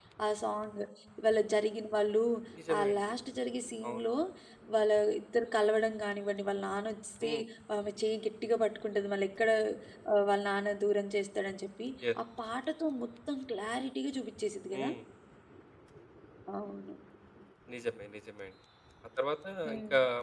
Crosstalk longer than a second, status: none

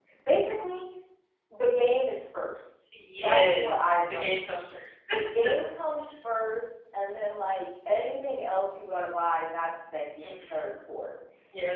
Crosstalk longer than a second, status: present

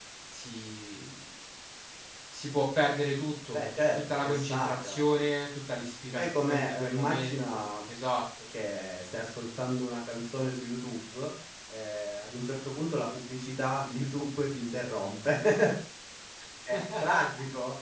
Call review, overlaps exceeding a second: present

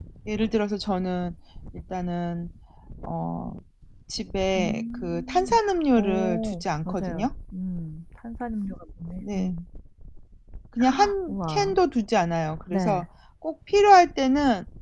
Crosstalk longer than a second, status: present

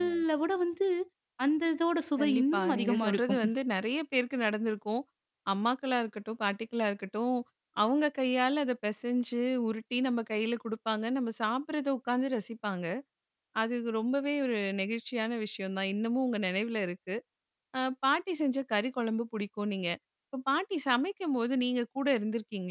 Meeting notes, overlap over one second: present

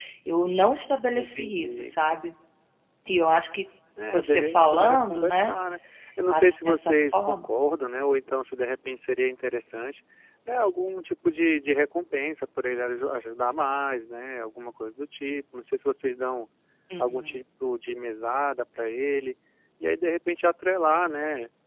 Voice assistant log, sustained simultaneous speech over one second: present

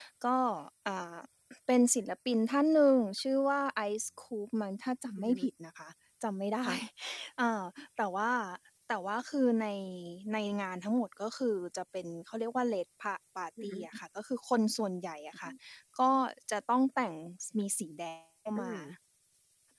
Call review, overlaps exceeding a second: none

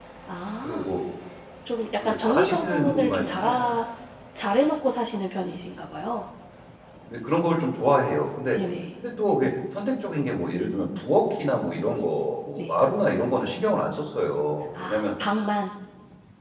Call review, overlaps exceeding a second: present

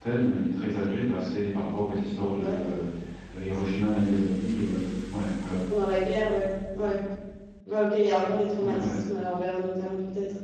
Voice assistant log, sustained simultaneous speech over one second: none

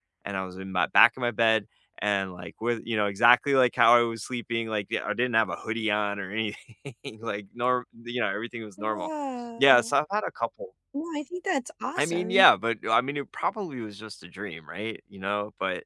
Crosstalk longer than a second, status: none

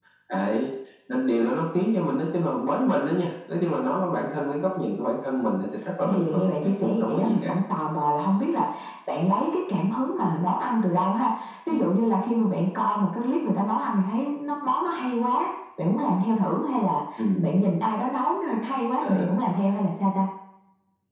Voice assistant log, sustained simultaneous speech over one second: present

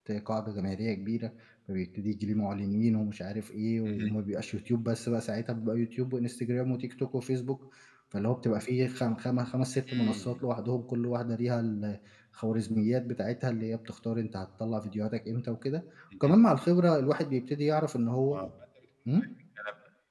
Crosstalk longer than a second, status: none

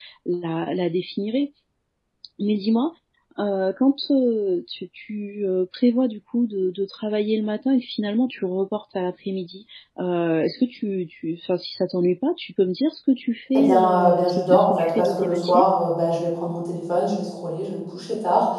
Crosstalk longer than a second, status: present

